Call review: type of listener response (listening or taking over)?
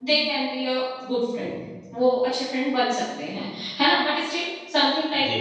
listening